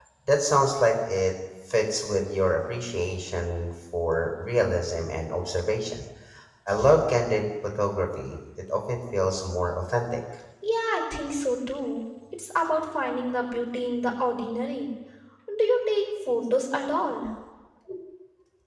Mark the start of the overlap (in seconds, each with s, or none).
none